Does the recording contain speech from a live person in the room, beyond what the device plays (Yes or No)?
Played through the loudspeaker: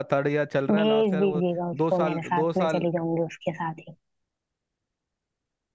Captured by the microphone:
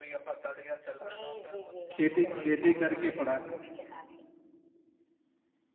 Yes